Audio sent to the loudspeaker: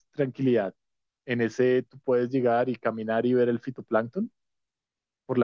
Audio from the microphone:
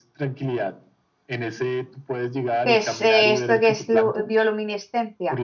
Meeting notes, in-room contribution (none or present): present